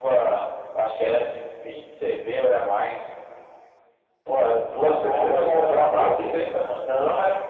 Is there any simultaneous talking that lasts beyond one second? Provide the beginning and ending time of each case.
4.7-6.3

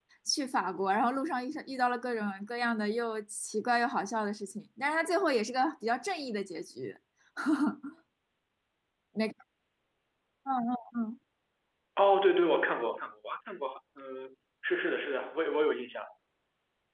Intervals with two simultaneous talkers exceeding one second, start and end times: none

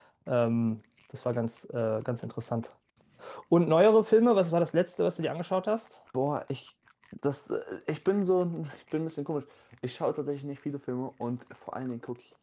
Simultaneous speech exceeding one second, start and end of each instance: none

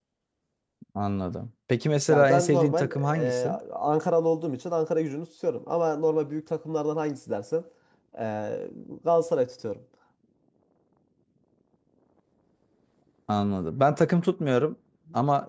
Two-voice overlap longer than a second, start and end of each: 2.1-3.6

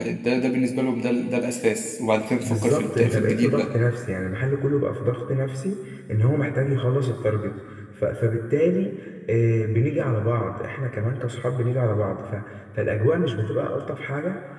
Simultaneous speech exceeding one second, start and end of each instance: 2.5-3.7

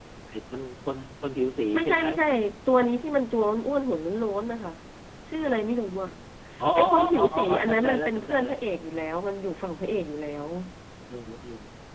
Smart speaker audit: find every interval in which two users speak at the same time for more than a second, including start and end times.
6.8-8.5

